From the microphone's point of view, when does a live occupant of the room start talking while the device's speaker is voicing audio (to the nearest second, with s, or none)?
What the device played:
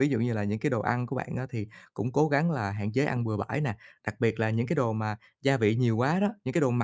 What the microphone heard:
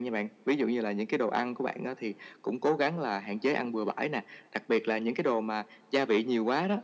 none